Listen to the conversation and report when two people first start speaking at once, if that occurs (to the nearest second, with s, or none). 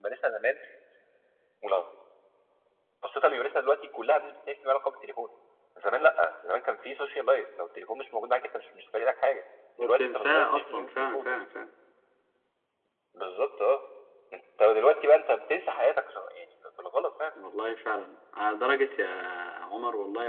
10 s